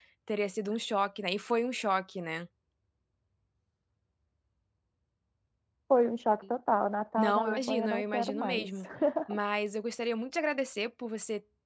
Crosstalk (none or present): present